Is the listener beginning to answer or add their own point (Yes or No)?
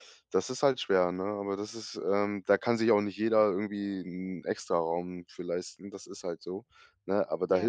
No